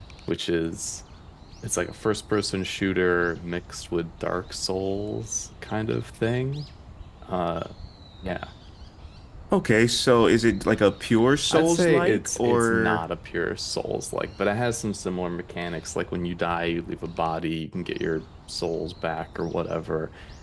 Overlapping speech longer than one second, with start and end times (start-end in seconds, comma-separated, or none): 11.5-13.0